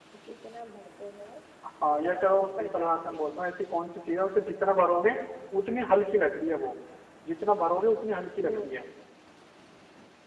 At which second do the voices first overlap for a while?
2.0 s

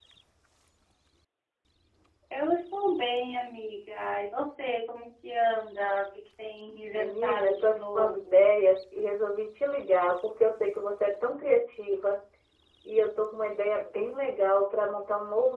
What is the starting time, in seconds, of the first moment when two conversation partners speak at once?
6.9 s

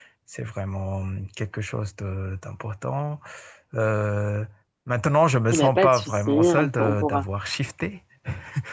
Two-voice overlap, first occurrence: 5.5 s

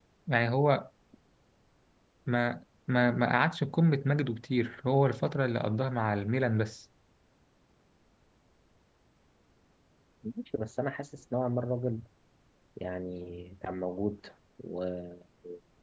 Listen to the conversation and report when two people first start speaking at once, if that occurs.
none

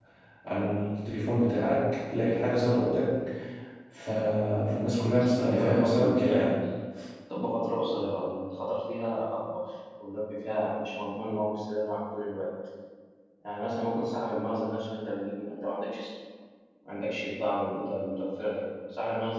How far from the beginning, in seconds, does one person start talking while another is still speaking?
5.2 s

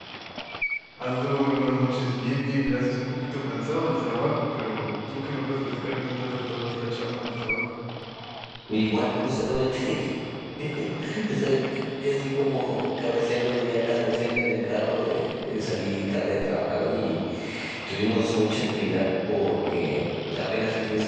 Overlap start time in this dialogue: none

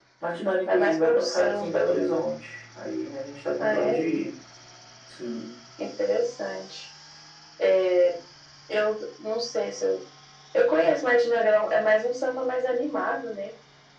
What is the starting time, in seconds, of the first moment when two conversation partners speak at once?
0.7 s

